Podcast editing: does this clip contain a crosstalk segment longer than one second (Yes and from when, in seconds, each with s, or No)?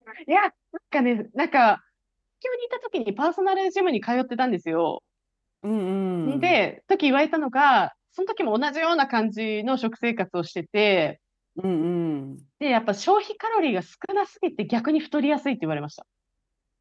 No